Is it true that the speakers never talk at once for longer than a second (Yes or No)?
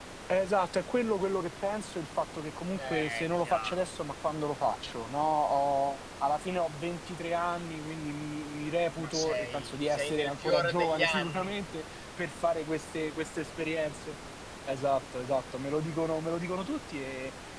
No